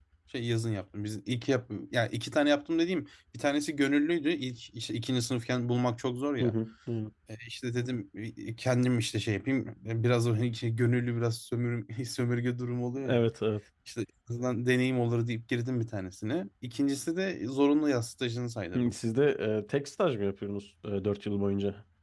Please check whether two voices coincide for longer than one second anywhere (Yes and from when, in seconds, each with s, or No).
No